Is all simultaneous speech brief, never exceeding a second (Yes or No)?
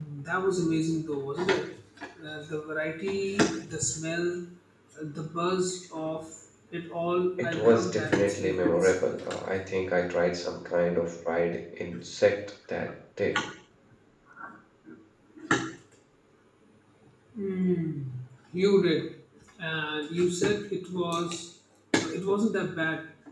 No